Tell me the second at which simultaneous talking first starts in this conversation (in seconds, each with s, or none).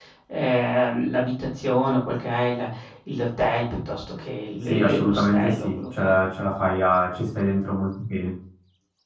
4.7 s